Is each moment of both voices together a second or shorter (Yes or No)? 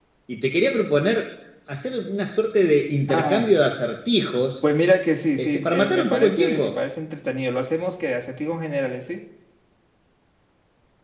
No